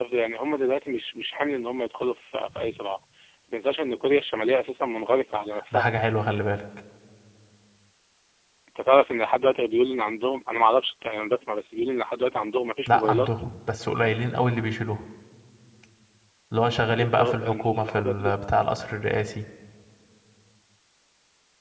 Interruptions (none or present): present